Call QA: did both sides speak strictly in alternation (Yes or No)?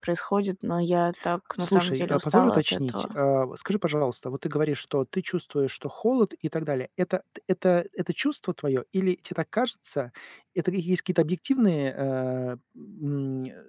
No